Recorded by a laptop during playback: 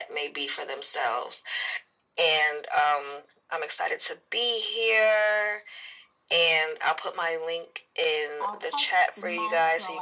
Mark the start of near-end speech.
8.4 s

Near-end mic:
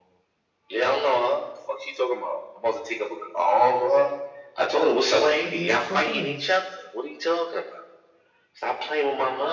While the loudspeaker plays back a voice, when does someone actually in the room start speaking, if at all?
5.4 s

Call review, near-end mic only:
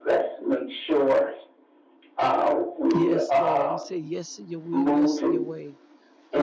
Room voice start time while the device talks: 2.9 s

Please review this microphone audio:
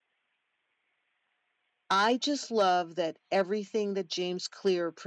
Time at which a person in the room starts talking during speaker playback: 1.9 s

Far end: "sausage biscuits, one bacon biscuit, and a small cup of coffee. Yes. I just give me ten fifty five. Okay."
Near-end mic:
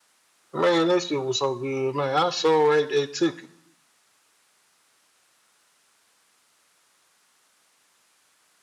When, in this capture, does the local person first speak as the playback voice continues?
0.5 s

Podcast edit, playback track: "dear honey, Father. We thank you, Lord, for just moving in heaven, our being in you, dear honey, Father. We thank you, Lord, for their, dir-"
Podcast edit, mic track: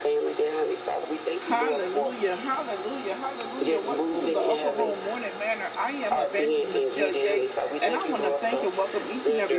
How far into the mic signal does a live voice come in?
1.4 s

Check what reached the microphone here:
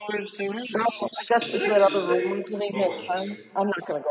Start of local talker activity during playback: 1.4 s

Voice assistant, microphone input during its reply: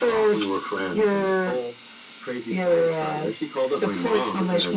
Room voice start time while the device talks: none

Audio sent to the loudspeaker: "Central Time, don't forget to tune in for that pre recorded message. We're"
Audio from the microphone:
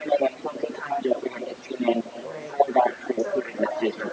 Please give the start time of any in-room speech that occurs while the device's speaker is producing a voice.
2.2 s

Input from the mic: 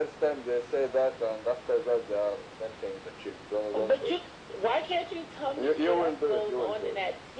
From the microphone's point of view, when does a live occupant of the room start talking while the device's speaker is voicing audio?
none

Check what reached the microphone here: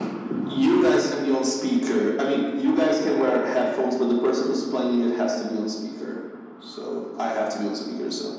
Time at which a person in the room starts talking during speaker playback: none

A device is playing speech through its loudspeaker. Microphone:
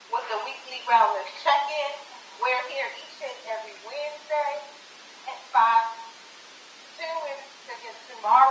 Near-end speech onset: none

